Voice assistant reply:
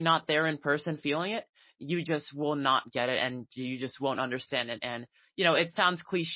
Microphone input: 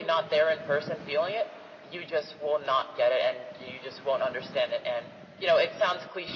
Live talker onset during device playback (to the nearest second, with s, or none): none